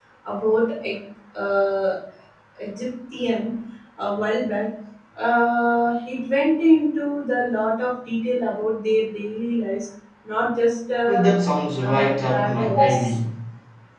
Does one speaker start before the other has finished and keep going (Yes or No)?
Yes